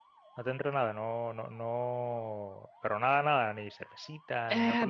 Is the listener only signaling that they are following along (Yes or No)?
No